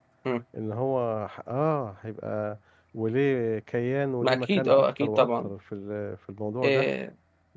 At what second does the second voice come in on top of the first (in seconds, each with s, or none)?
4.2 s